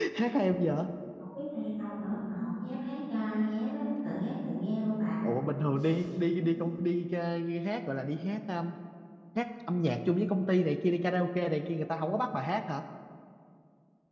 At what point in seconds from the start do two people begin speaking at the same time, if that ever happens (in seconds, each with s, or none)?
none